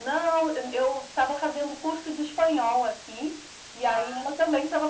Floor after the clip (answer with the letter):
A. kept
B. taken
A